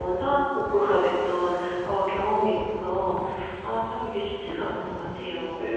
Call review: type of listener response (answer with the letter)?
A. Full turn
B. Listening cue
A